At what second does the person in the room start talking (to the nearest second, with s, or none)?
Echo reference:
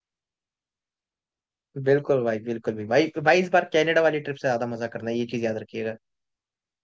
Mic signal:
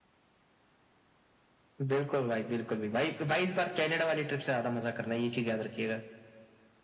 none